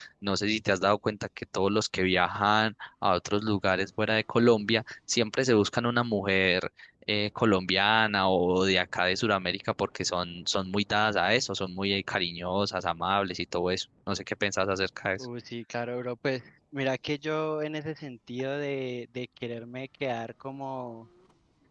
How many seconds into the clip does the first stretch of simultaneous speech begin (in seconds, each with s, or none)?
none